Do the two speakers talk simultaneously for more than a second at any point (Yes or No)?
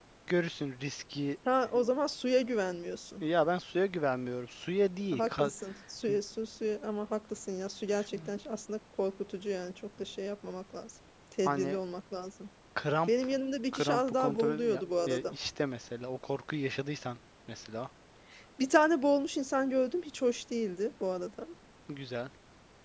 Yes